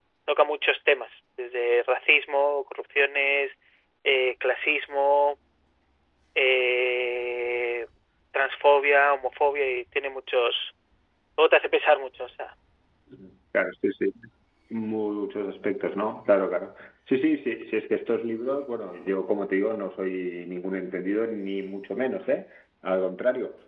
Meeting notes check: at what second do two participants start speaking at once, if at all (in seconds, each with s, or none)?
none